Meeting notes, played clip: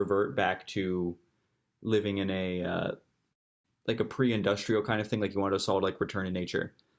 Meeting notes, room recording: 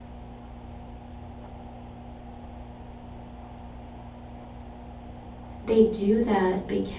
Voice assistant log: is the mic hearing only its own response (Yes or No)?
No